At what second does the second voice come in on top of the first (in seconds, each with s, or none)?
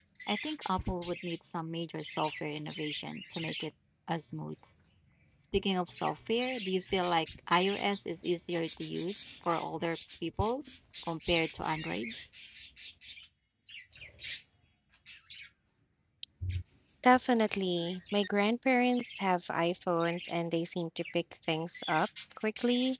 none